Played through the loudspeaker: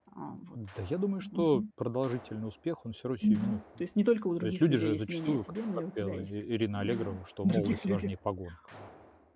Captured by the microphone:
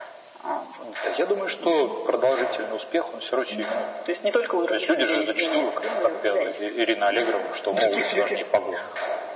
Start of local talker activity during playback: none

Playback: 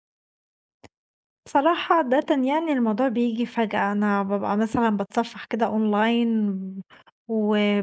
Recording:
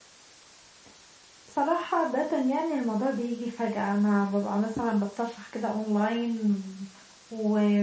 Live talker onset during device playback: none

